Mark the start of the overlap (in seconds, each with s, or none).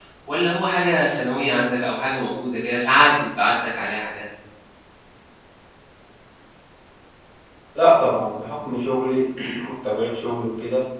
none